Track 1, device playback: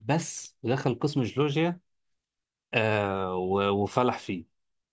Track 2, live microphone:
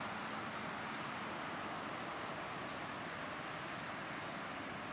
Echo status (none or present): none